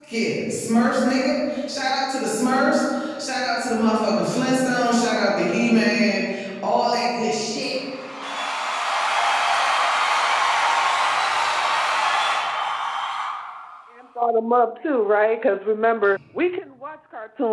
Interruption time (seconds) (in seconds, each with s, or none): none